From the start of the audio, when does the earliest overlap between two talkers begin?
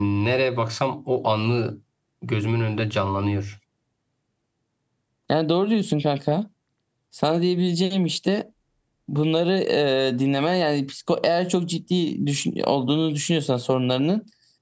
none

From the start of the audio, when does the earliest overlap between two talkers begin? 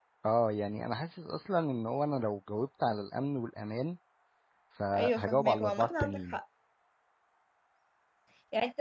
5.0 s

